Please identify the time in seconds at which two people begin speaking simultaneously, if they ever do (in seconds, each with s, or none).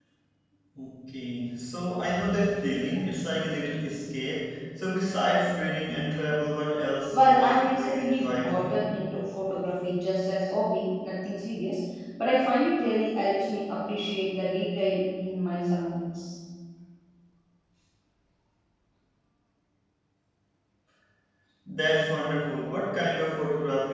7.1 s